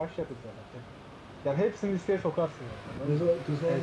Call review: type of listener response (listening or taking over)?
taking over